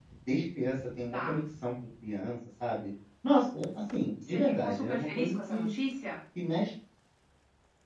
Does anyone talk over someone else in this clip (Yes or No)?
Yes